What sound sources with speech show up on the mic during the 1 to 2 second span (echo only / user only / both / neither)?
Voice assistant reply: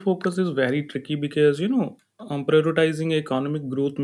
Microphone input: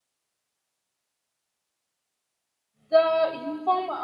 neither